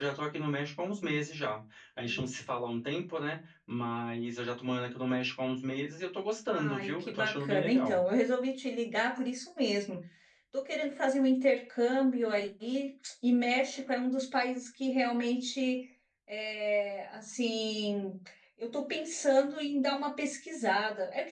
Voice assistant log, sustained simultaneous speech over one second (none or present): present